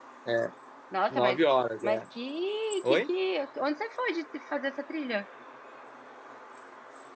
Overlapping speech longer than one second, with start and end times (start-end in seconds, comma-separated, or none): none